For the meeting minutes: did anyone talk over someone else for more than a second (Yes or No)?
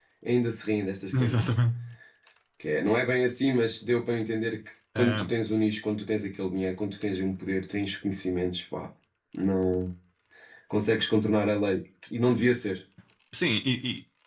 No